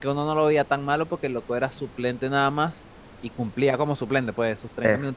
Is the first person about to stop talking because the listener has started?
No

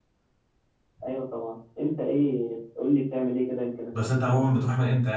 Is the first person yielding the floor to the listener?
Yes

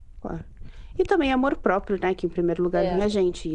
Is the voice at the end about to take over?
No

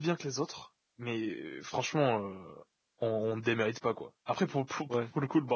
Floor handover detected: No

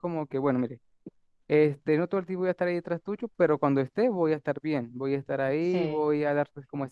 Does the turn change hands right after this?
No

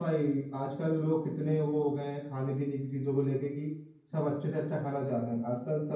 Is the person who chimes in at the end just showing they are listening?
Yes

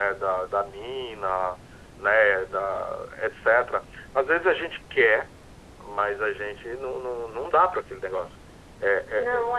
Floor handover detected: No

